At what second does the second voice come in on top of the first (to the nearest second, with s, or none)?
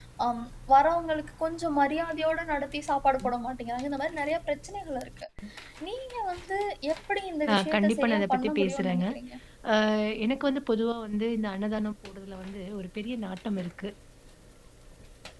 8 s